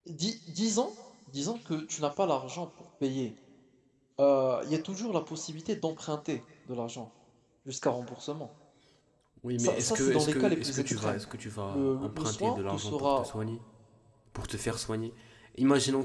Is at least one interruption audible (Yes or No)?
Yes